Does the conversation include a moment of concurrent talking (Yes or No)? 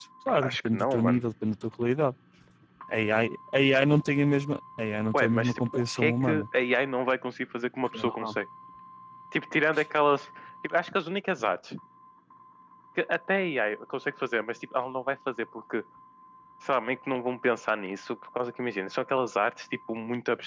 Yes